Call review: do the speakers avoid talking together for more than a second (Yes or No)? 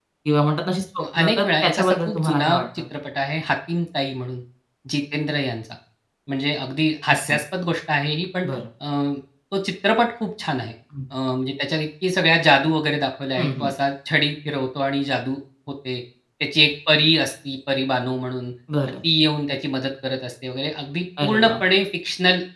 No